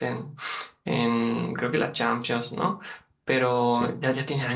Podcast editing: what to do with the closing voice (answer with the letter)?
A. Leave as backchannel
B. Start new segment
A